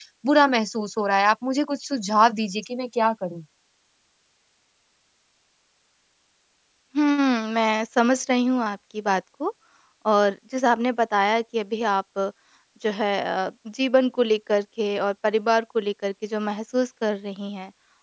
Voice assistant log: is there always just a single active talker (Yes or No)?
Yes